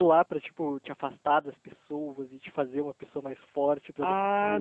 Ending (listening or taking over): taking over